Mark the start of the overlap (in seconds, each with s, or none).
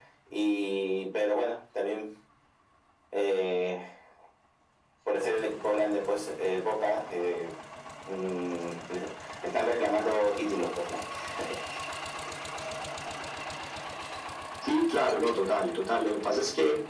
none